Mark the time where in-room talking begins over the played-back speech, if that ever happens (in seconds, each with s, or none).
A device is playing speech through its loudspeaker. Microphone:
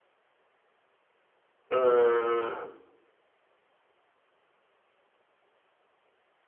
1.7 s